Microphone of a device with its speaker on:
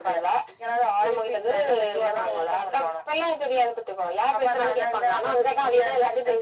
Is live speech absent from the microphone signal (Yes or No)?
Yes